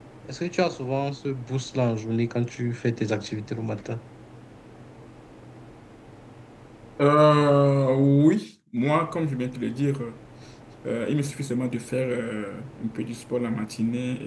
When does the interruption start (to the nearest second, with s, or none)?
none